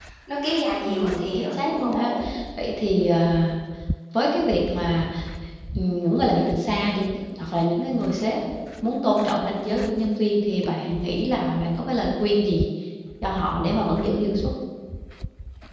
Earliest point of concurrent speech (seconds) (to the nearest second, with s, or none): 1 s